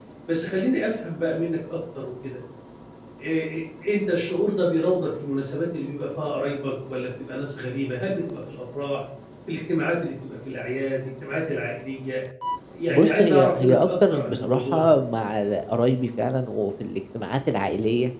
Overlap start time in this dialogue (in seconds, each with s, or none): 12.9 s